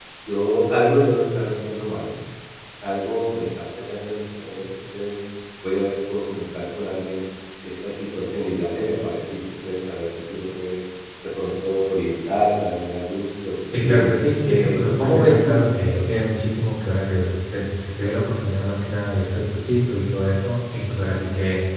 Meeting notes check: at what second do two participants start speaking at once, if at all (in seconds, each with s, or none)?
13.7 s